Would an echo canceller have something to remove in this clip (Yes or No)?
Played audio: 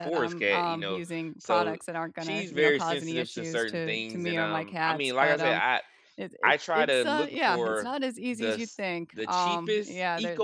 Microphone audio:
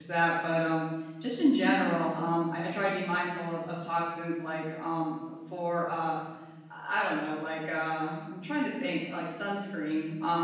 No